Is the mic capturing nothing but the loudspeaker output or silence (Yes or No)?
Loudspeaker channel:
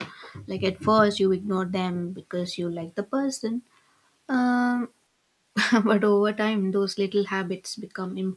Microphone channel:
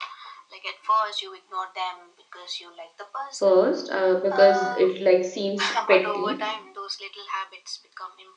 No